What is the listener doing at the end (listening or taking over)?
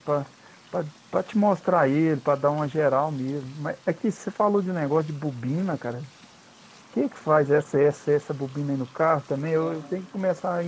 listening